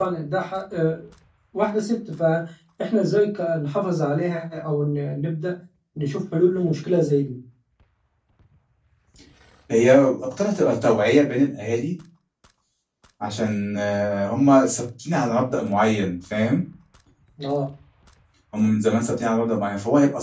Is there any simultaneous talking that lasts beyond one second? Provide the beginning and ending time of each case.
none

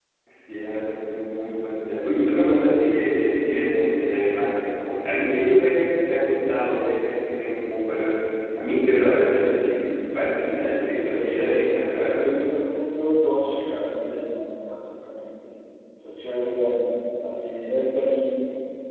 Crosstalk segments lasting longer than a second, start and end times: 11.1-12.4

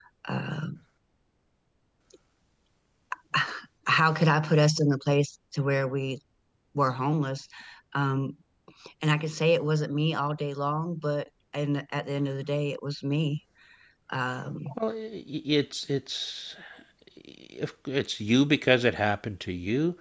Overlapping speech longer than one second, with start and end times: none

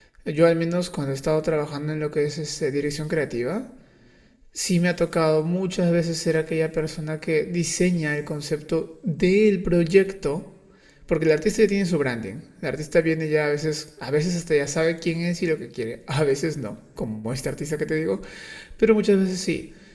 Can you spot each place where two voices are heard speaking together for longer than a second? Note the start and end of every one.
none

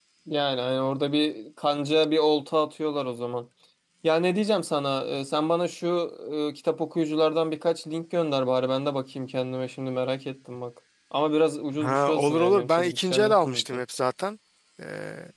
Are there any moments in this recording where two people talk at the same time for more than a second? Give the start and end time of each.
11.8-13.8

